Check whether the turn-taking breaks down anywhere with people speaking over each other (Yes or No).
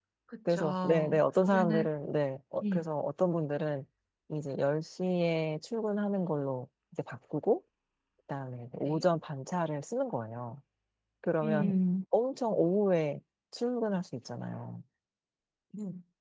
Yes